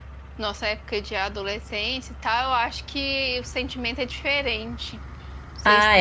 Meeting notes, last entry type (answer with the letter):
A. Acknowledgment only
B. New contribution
B